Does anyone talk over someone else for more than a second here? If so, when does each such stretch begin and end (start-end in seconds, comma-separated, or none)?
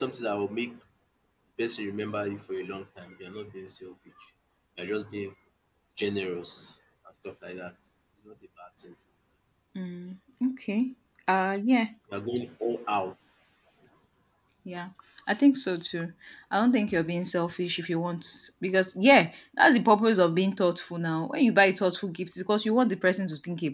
none